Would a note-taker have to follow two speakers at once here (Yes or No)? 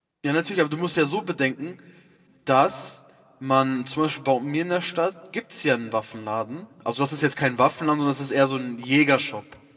No